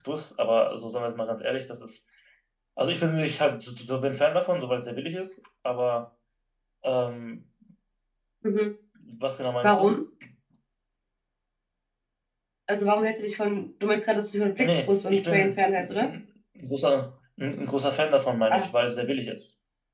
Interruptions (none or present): present